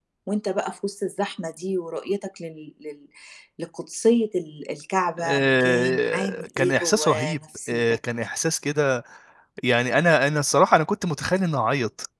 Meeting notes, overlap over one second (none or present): present